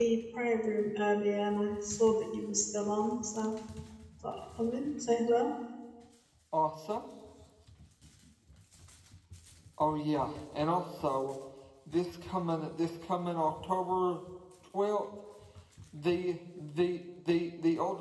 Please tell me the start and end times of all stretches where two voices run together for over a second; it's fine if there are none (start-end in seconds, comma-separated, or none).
none